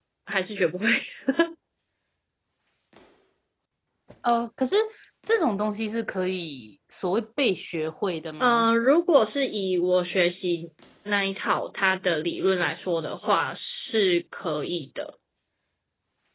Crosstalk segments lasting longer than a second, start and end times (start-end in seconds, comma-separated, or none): none